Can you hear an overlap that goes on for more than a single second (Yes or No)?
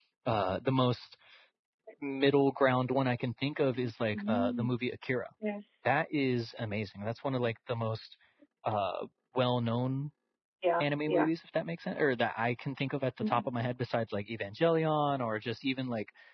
No